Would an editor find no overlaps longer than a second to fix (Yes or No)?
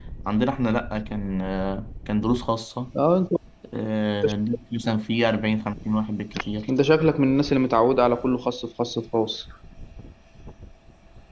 Yes